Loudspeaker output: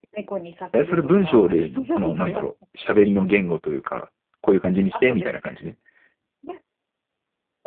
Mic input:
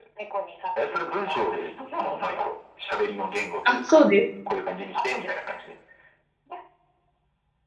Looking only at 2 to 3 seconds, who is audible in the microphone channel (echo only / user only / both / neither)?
echo only